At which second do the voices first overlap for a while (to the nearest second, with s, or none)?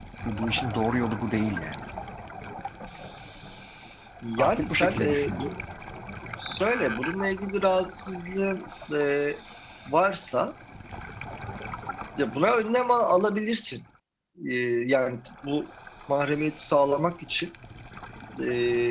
4 s